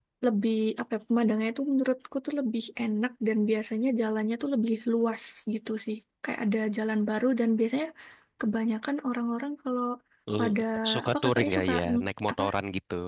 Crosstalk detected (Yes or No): Yes